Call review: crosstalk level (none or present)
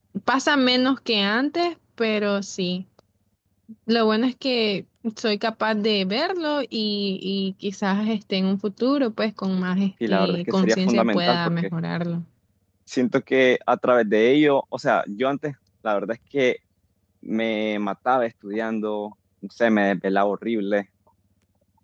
present